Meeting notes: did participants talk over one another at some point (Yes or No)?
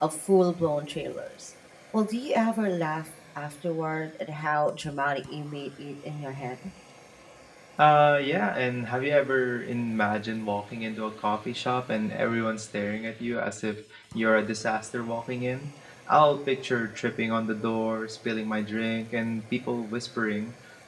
No